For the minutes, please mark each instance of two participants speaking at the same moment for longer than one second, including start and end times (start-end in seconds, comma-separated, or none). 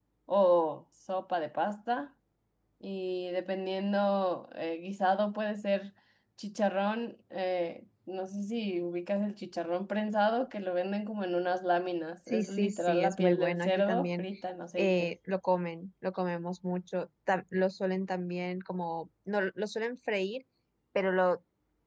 12.3-14.3